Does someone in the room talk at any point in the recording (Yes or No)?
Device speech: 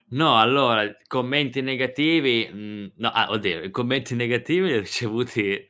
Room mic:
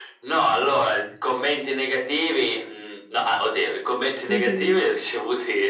Yes